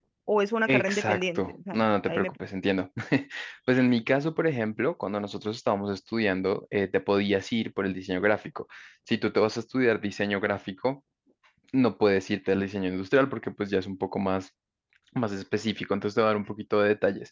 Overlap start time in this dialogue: 0.7 s

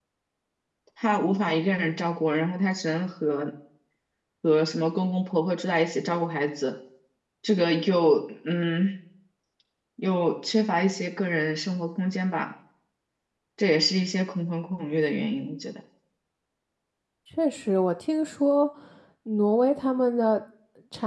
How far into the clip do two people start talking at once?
none

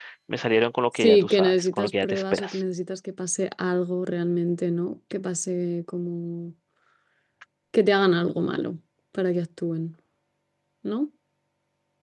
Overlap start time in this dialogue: 0.9 s

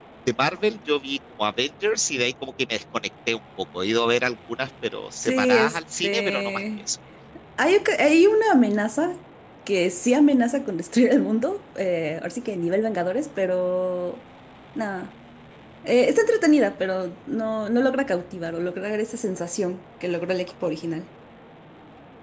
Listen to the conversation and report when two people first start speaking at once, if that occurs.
5.2 s

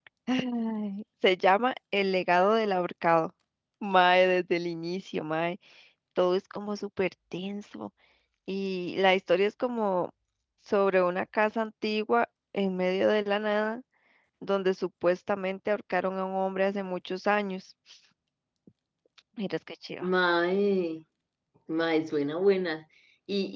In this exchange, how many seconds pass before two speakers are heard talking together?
none

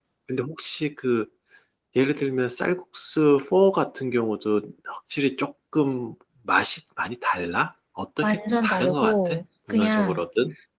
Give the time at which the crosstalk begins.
8.2 s

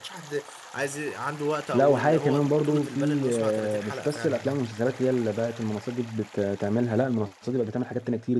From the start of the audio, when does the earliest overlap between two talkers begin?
1.7 s

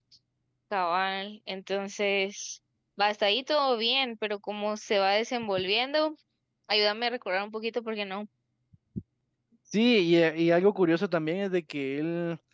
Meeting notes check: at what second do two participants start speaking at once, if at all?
none

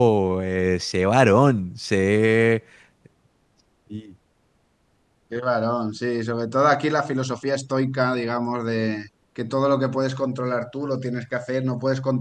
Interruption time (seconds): none

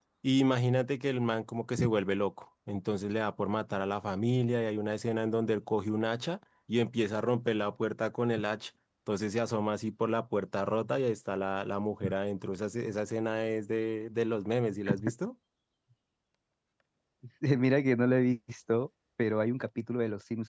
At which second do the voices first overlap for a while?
none

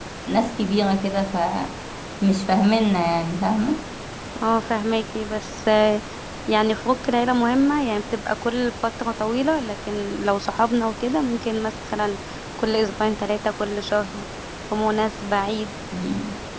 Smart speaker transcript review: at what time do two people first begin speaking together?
none

